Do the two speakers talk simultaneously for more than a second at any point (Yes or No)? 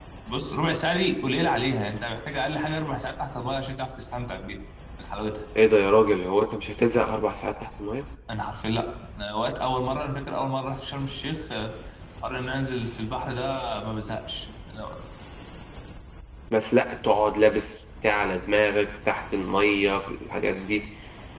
No